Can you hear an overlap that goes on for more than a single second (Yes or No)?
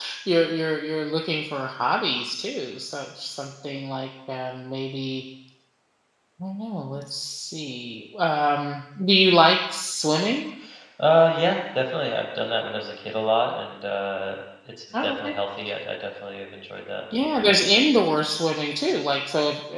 No